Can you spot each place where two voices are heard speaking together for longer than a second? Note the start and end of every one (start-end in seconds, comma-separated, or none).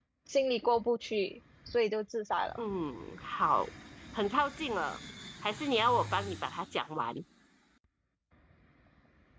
none